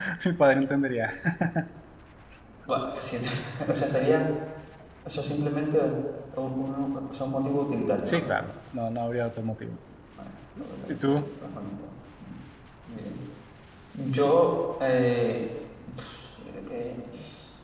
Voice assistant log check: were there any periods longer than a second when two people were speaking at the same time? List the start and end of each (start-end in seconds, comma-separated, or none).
none